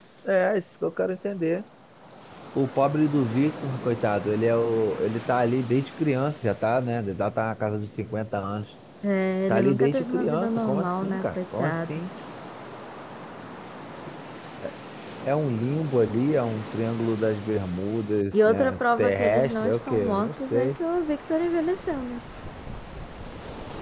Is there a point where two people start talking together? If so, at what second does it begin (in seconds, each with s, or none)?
9.5 s